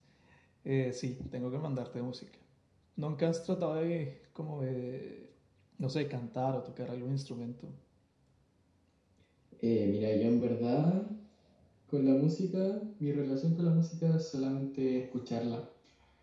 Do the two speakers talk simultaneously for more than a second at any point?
No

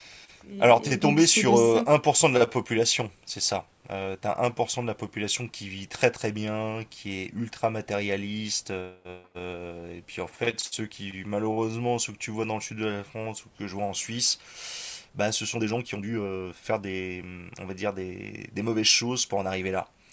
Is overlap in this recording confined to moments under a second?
No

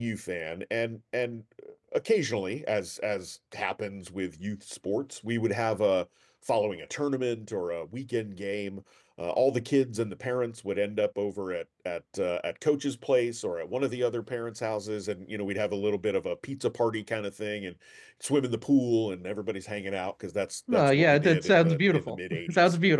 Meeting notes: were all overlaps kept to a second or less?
No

